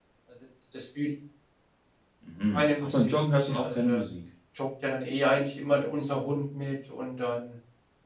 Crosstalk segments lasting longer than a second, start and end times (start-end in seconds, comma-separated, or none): 2.5-4.0